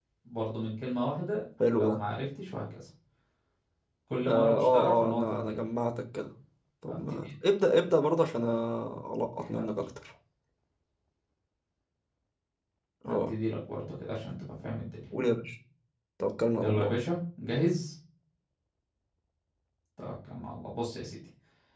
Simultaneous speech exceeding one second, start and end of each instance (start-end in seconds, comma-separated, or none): 4.3-5.6